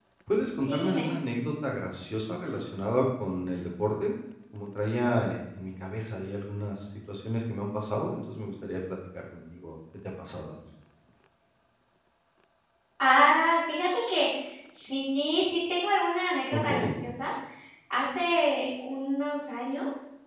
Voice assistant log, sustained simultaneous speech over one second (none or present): none